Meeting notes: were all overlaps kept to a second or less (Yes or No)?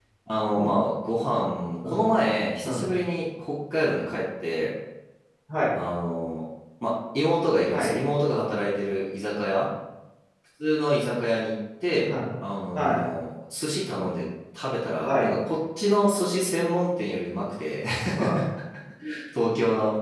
Yes